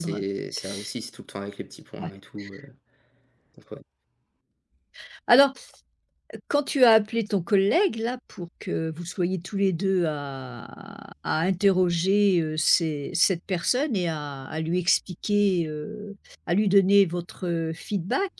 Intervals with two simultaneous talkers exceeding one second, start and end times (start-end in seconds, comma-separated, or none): none